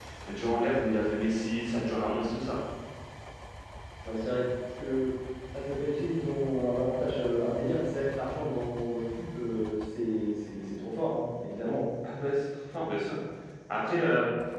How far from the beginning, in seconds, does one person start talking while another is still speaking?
none

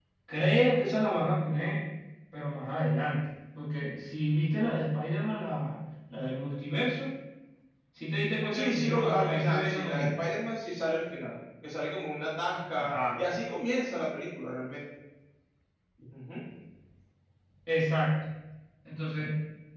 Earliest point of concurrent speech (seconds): 8.5 s

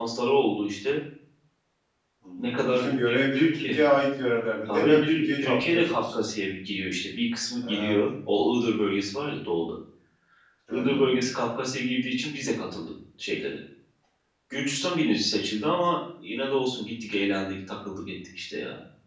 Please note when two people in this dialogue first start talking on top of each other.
2.4 s

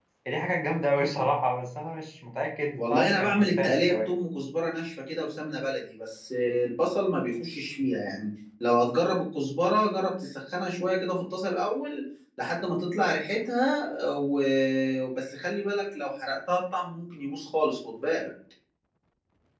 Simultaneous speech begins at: 2.8 s

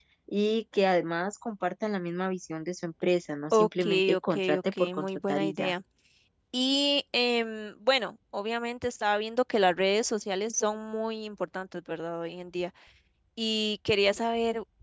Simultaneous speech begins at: 3.5 s

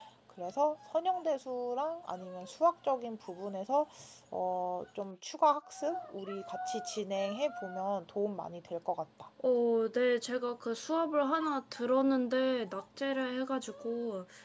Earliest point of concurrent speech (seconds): none

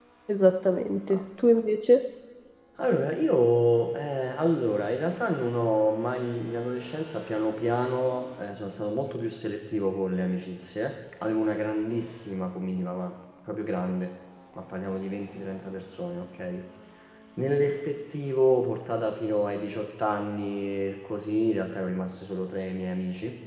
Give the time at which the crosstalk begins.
none

